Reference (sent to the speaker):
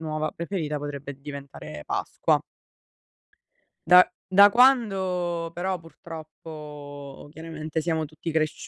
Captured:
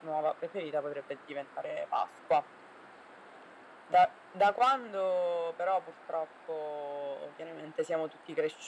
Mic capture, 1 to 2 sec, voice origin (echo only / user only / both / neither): echo only